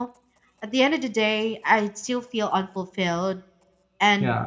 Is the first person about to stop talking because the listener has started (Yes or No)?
No